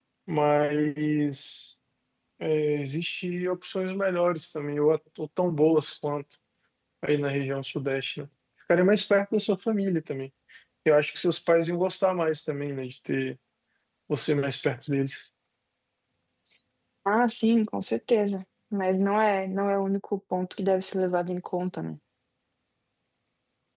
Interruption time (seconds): none

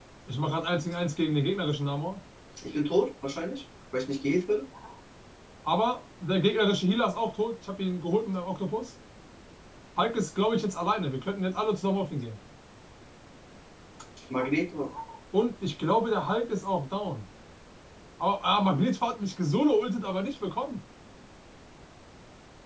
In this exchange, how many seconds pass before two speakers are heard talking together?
none

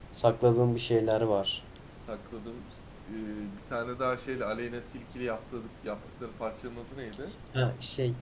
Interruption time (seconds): none

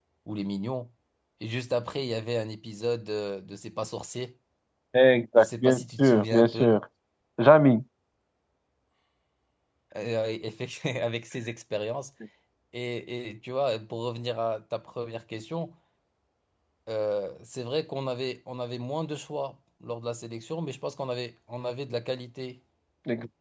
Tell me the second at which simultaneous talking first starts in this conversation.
5.4 s

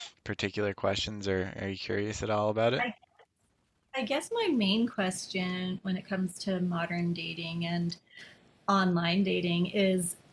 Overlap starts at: none

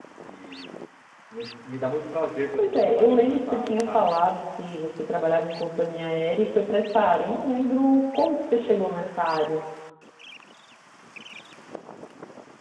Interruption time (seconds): 2.6 s

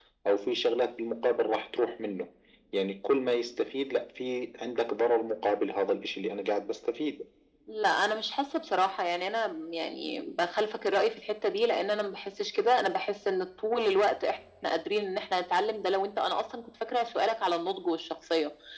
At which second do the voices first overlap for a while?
none

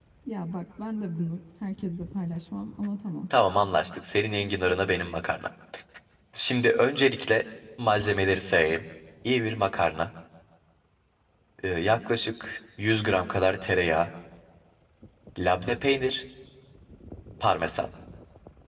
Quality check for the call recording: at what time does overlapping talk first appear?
none

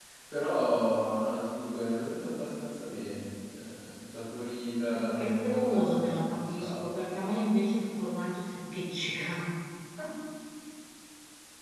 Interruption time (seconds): 4.9 s

